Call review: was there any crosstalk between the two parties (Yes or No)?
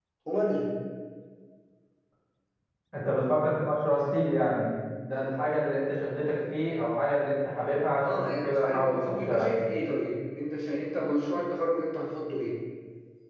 Yes